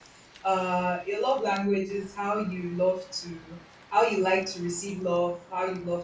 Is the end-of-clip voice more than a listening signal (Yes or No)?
No